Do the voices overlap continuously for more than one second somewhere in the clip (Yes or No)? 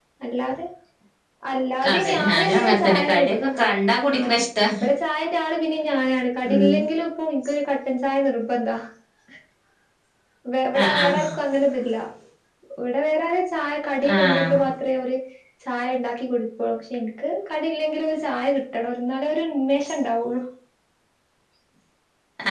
Yes